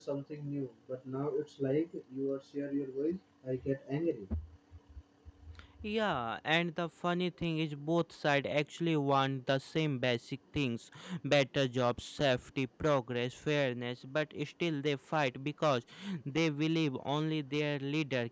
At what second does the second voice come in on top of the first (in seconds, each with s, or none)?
none